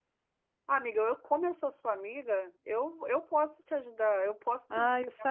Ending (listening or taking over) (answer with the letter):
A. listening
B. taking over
B